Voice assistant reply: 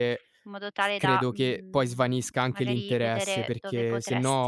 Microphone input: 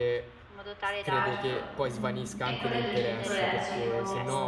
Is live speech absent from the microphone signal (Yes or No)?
No